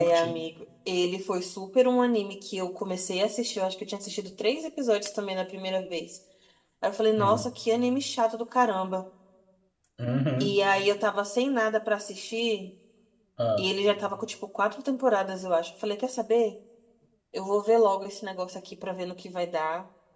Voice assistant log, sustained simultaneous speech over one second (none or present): none